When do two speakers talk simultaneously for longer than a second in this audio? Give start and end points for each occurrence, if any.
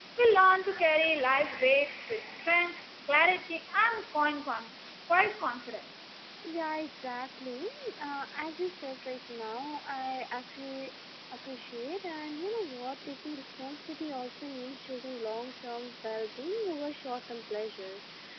none

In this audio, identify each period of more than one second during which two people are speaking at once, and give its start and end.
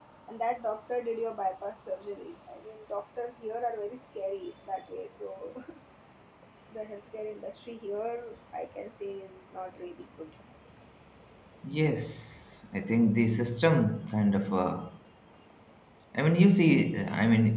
none

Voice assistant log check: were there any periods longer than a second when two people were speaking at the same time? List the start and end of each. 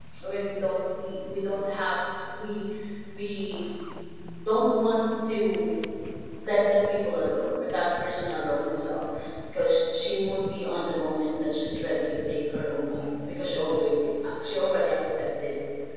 none

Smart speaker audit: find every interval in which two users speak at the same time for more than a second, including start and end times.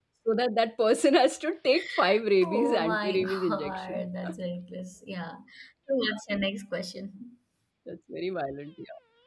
2.4-4.0

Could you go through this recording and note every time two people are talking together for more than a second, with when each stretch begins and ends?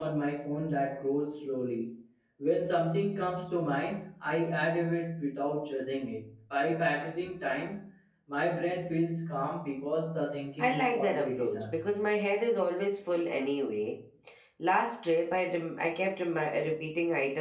10.6-11.8

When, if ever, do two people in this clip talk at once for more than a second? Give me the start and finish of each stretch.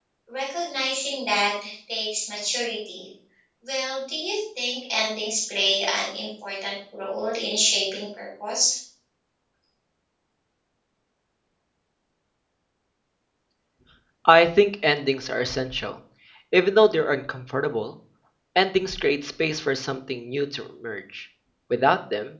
none

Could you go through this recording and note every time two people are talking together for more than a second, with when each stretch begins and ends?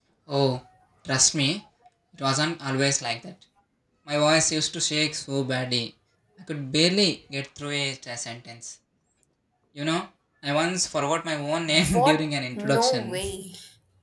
11.9-13.2

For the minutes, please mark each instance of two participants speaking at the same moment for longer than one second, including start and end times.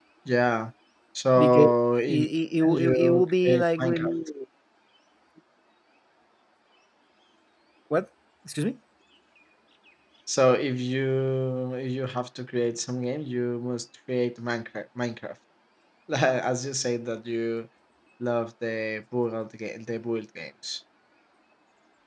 2.6-4.1

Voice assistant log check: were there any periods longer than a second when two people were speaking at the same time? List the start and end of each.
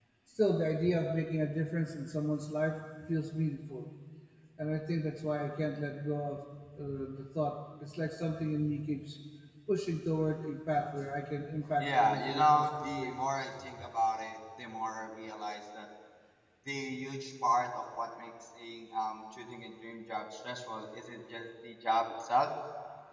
11.8-13.2

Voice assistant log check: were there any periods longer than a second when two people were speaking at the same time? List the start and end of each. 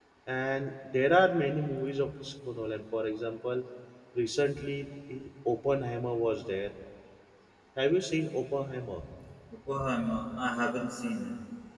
none

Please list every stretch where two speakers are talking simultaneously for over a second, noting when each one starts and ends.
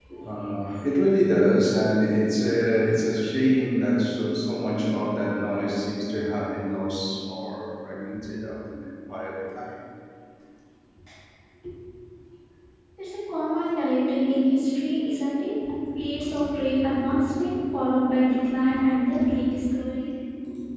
none

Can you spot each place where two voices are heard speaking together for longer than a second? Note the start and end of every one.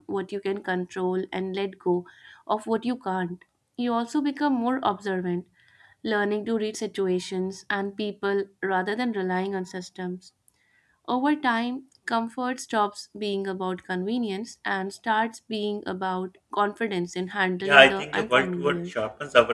17.6-18.9

